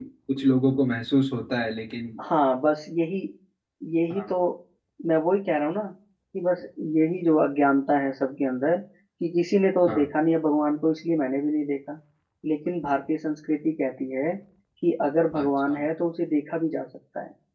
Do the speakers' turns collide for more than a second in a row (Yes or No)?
No